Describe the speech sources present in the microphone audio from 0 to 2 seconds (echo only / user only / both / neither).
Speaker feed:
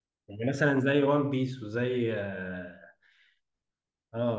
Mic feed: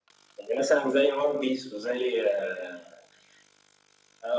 echo only